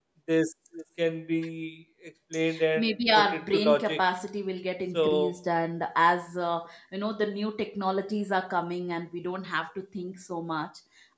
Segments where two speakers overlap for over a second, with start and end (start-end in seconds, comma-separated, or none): 2.8-4.0